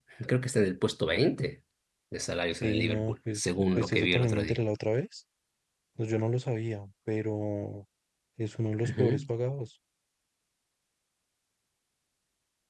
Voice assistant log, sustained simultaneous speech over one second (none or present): present